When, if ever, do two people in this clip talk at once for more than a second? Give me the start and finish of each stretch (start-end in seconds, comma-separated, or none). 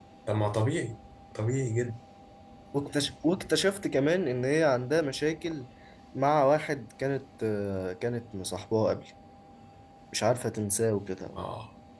none